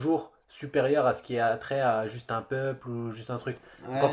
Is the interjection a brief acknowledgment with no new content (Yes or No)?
No